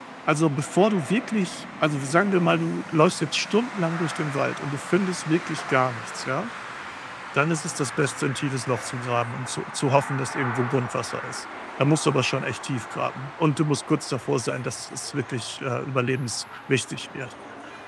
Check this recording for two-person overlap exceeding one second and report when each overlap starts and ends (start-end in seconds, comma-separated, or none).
none